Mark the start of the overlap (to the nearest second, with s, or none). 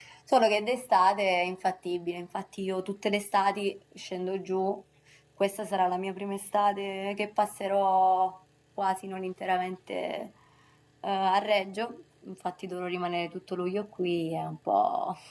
none